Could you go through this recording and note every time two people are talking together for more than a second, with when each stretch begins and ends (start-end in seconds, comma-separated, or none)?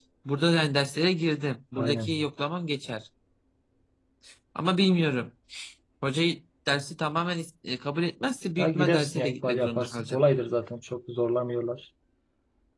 8.6-10.2